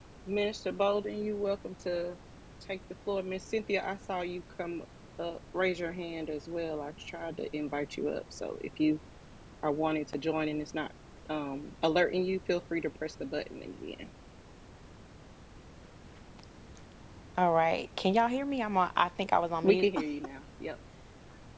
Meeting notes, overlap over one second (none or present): none